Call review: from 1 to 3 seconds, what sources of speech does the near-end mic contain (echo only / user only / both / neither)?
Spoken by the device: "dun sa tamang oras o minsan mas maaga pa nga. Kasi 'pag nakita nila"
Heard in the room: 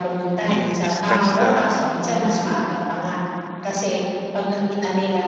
both